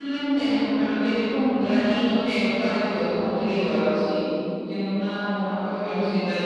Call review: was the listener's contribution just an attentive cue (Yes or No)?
Yes